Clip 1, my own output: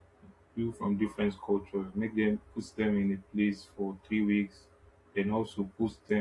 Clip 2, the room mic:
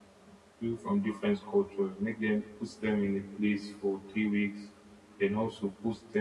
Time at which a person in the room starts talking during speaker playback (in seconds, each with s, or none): none